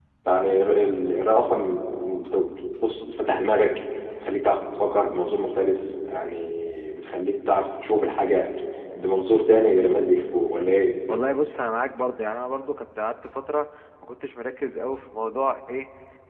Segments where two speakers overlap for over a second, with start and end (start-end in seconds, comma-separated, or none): none